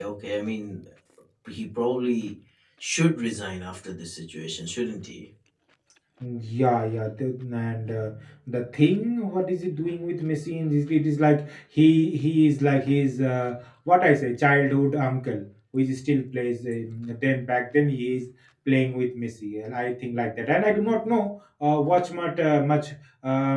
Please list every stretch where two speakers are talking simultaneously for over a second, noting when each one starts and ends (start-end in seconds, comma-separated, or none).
none